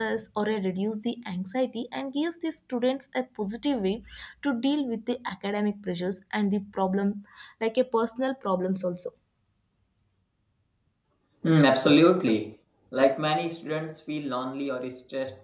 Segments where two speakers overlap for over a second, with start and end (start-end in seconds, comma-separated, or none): none